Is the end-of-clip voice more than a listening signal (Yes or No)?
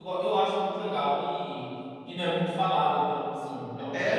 Yes